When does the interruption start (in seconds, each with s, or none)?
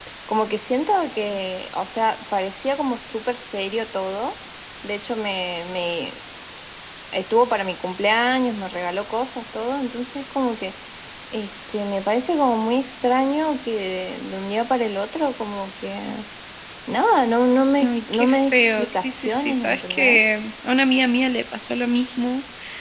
17.8 s